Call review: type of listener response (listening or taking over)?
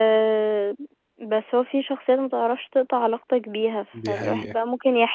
listening